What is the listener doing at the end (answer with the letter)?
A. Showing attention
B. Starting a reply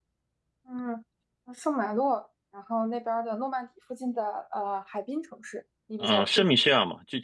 B